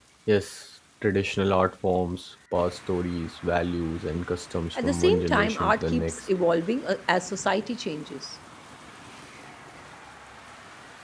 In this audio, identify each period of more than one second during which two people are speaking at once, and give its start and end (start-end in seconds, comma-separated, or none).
4.8-6.2